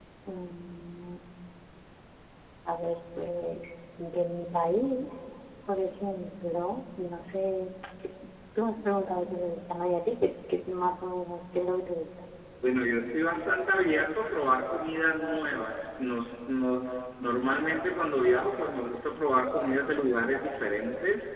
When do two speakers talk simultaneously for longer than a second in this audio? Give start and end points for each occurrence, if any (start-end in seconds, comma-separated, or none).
none